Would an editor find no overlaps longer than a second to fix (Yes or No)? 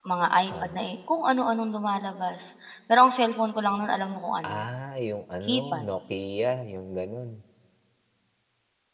Yes